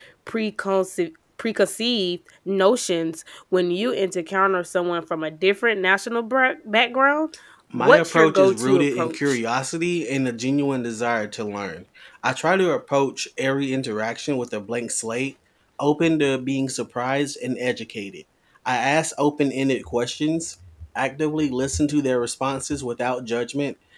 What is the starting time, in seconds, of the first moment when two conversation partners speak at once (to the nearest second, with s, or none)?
8 s